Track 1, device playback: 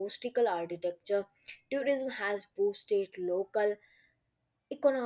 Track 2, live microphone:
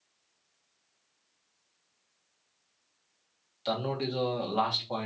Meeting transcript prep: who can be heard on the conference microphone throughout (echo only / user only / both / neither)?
user only